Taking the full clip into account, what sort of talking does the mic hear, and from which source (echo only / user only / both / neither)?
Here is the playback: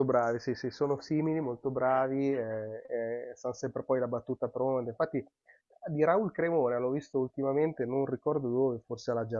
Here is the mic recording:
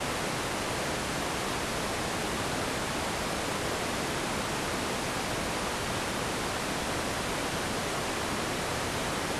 neither